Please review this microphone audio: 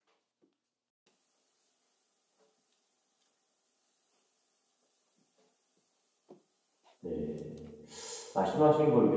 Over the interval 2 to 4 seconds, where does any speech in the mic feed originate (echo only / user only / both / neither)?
neither